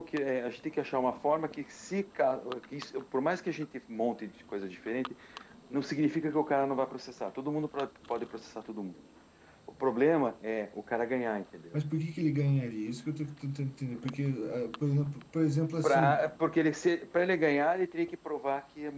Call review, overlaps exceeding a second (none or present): none